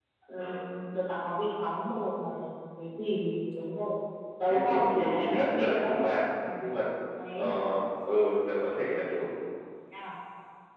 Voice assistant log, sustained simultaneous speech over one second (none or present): present